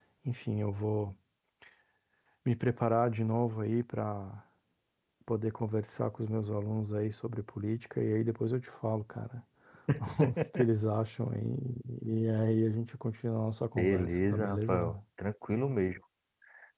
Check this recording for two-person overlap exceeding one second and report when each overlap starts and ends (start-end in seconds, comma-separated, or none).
13.8-15.0